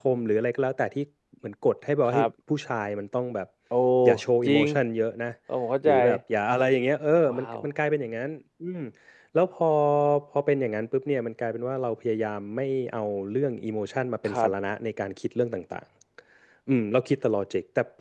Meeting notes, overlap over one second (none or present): none